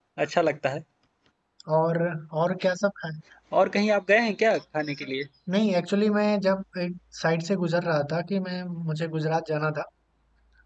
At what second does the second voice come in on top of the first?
none

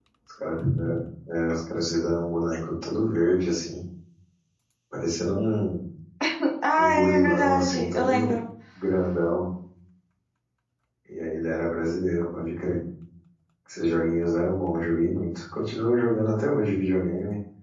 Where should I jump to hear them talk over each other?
6.8 s

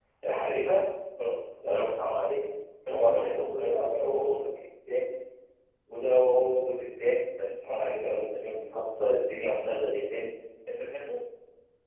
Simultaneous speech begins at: 2.9 s

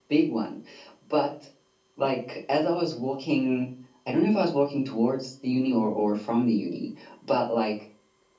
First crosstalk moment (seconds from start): none

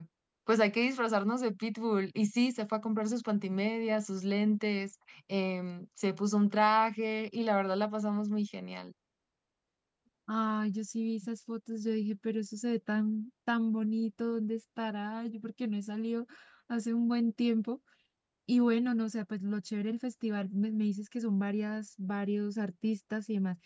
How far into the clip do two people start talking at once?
none

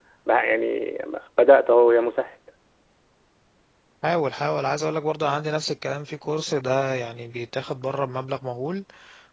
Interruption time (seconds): none

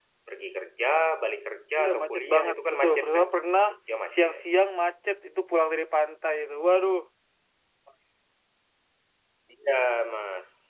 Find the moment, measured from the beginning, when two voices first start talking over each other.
1.8 s

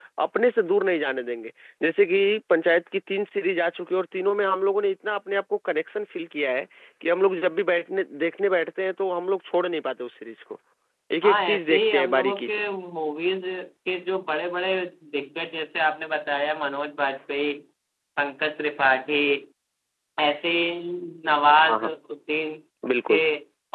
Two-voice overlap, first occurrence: 11.2 s

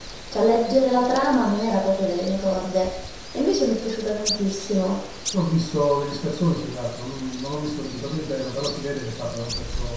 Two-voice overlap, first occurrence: none

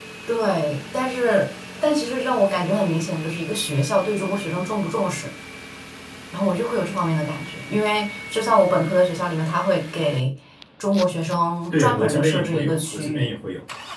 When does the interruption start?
11.7 s

